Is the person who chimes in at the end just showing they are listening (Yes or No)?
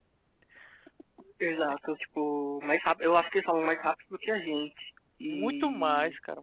No